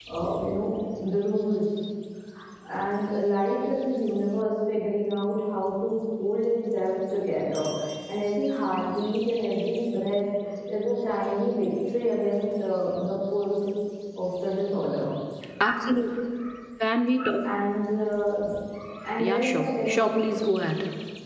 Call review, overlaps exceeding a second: present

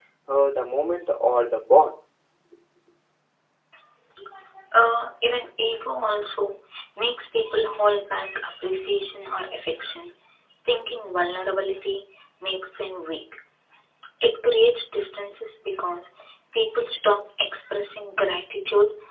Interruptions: none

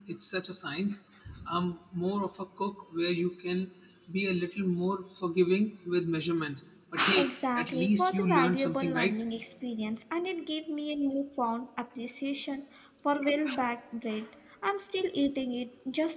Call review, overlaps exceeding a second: present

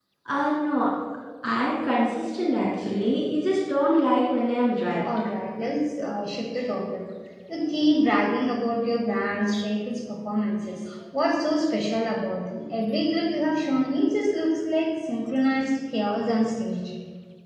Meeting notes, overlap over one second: none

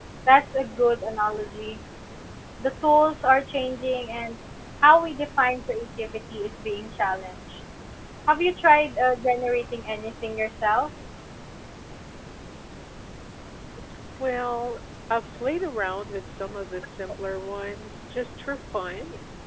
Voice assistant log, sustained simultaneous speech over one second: none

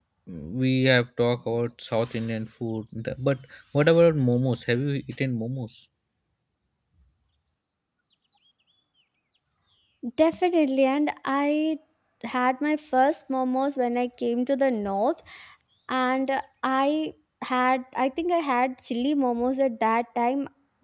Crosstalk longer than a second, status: none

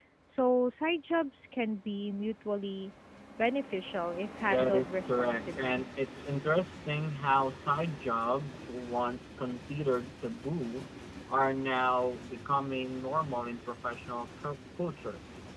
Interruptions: present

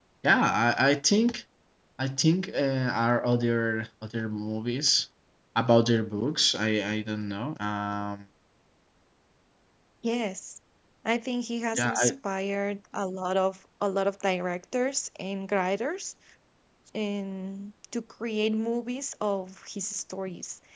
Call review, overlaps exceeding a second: none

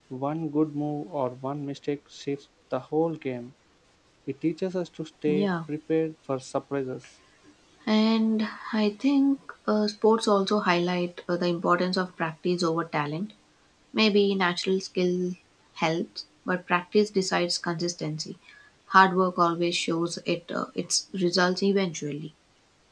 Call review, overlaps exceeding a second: none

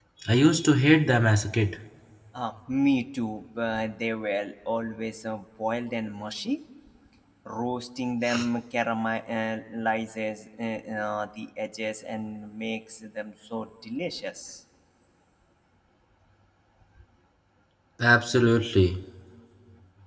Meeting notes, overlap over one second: none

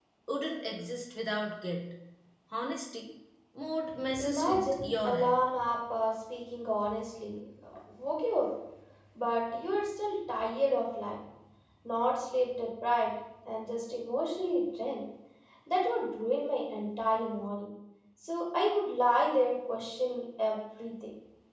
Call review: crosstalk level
present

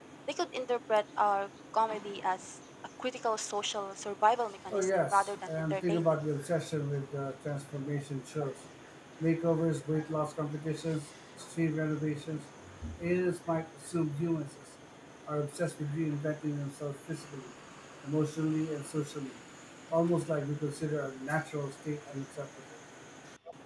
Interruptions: present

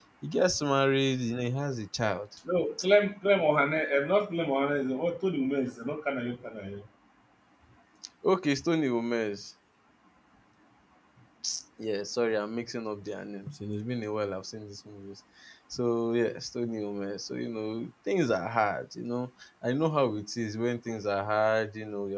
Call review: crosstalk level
none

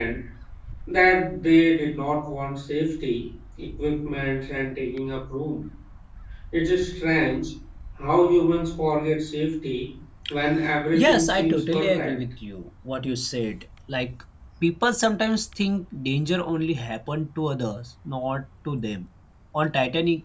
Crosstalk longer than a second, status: present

